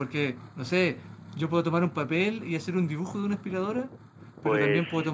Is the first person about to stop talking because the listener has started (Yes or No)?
No